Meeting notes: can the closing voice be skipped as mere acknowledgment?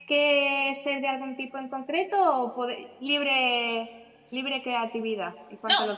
No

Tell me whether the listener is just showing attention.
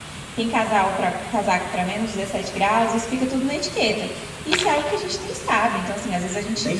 Yes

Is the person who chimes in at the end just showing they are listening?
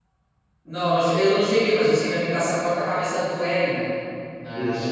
Yes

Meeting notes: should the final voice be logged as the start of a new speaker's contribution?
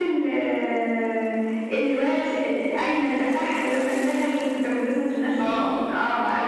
Yes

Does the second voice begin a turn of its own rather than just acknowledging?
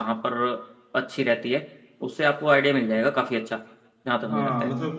Yes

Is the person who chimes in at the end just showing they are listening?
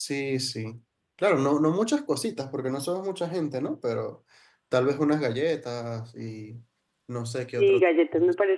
No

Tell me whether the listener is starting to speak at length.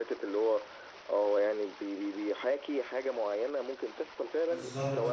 Yes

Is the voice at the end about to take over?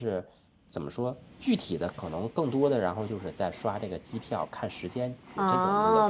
Yes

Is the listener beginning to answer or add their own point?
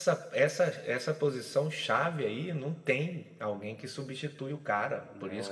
No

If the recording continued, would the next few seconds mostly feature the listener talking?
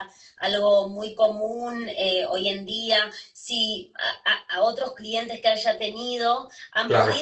No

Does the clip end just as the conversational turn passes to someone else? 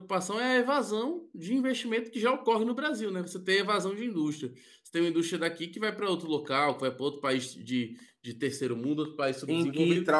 Yes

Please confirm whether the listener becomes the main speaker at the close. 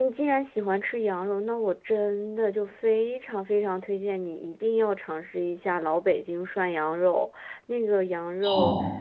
No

